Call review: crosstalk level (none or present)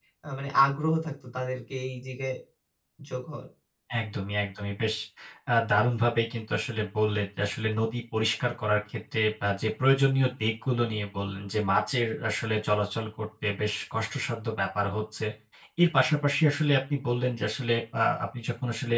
none